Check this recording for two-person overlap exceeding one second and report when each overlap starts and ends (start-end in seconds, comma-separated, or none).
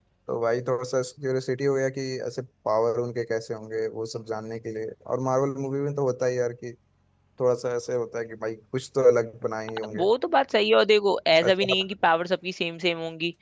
none